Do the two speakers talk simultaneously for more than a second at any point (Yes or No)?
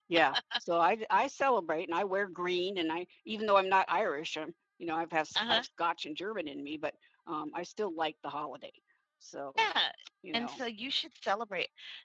No